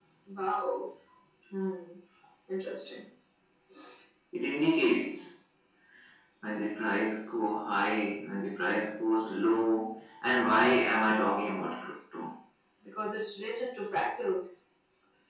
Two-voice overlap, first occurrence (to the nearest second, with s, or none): none